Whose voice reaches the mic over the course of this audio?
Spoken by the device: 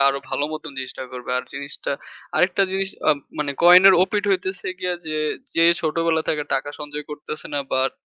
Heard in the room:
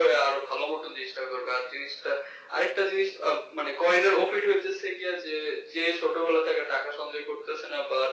echo only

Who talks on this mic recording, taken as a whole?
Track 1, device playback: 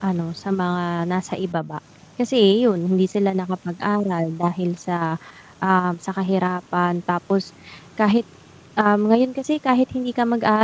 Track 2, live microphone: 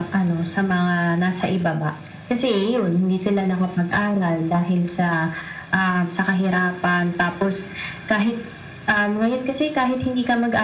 echo only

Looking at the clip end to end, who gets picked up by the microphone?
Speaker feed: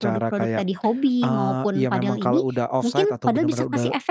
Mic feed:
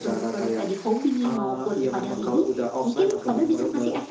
both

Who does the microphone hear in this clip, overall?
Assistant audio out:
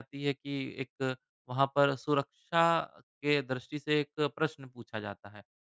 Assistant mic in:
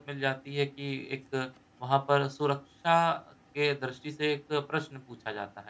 echo only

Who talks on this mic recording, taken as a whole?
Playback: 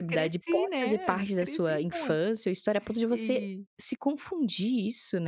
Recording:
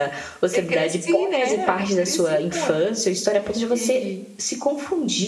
echo only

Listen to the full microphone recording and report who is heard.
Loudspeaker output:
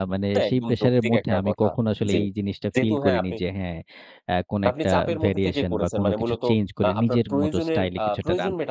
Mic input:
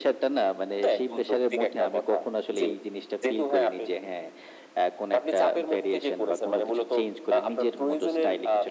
echo only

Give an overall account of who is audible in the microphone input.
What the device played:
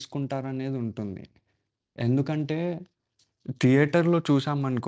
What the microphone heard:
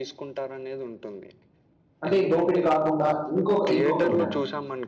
both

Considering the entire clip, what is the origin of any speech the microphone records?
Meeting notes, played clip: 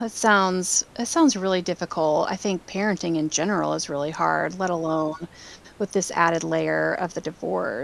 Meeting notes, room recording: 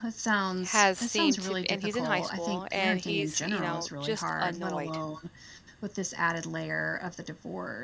both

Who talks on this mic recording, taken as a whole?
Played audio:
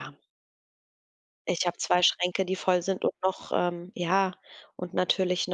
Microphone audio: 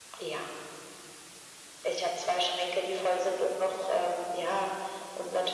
echo only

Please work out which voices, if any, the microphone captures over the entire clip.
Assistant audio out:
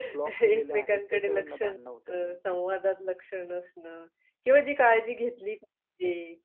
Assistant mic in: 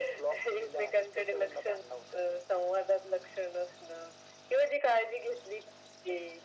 echo only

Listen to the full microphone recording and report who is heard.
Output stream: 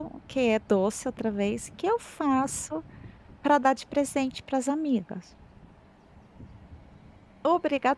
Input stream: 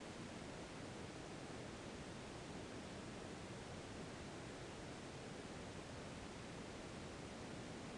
neither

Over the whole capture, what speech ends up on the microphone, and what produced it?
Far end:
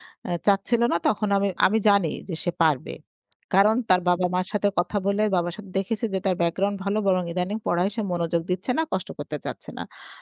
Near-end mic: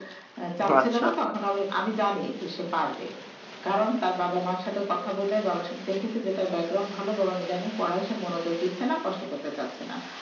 both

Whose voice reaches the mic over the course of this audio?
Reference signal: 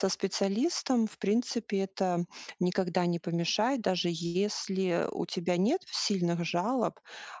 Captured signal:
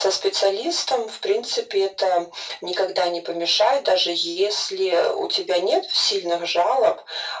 echo only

